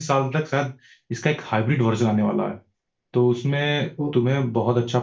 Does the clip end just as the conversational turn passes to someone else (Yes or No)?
No